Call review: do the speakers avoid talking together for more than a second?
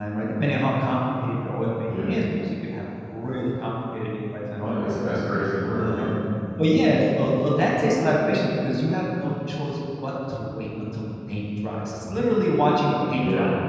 Yes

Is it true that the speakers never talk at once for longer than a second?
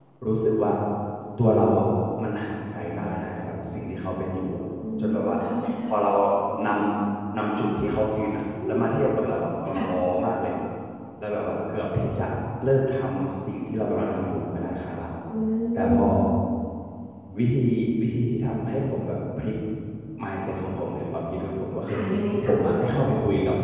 Yes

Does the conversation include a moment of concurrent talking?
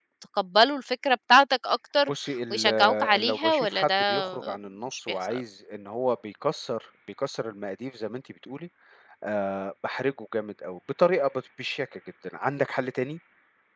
Yes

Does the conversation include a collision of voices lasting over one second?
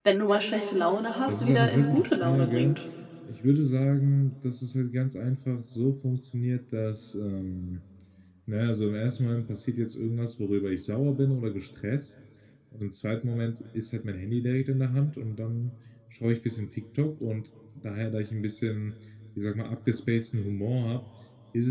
Yes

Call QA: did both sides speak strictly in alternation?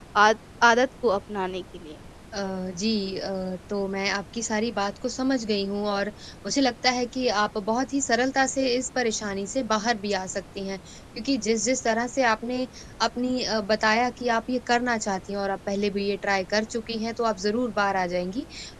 Yes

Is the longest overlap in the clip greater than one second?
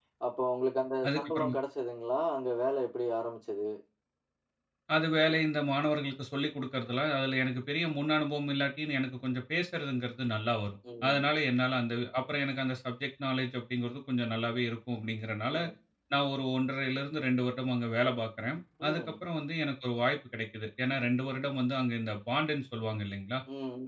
No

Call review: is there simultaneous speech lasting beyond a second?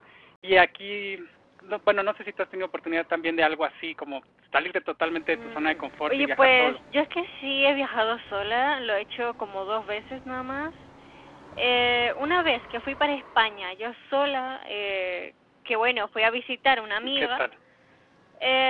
Yes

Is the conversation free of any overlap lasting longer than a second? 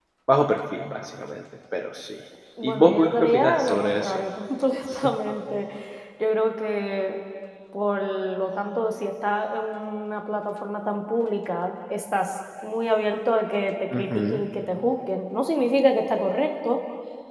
No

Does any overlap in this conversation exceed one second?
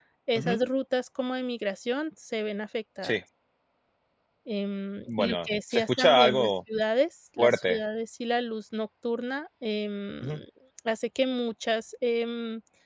Yes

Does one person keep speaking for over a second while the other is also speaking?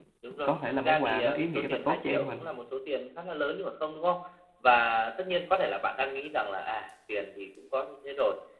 Yes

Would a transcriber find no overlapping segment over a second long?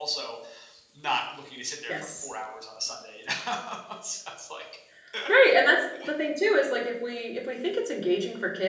Yes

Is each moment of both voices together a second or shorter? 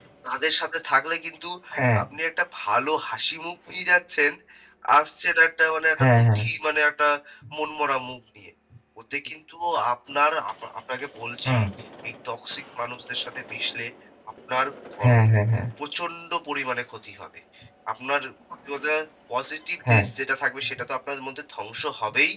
Yes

